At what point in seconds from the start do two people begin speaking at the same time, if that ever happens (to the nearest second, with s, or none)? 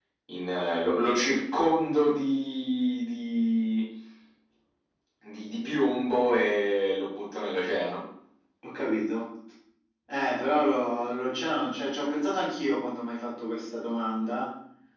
none